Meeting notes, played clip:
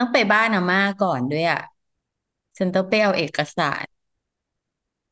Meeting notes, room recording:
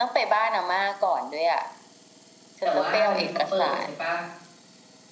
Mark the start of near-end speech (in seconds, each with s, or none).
2.6 s